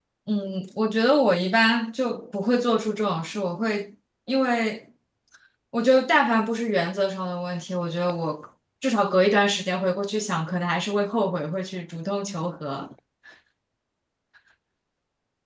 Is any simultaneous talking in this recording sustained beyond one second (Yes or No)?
No